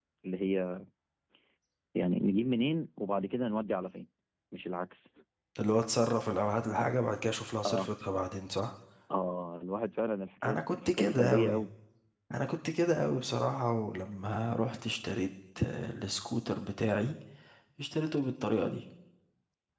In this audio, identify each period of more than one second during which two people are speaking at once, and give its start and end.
10.4-11.6

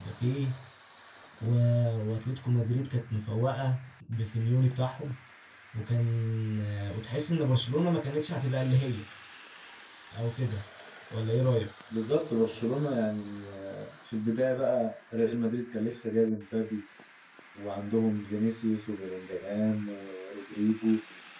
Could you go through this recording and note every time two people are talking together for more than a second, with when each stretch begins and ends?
none

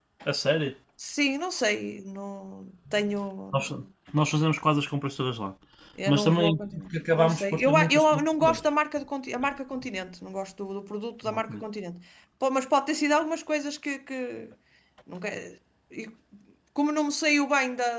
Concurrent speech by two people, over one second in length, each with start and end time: 6.1-8.7

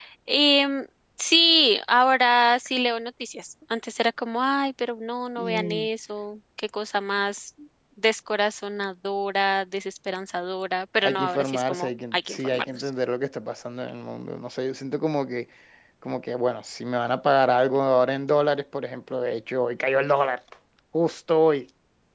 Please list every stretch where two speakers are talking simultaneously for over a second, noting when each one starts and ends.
11.0-12.9

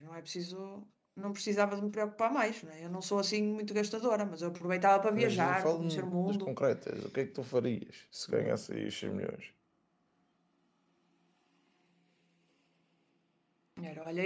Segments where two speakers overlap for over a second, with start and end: 5.2-6.5

